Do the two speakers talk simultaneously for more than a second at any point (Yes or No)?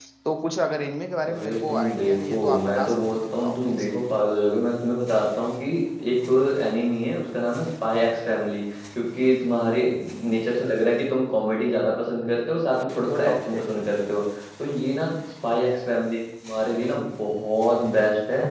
Yes